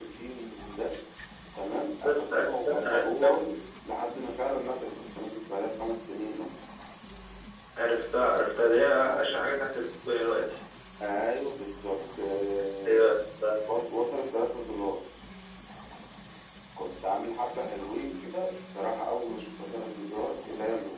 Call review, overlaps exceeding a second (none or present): present